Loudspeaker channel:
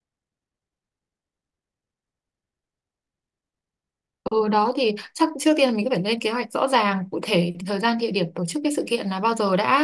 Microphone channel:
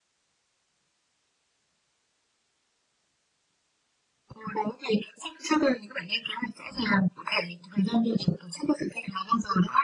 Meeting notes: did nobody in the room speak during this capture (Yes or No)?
Yes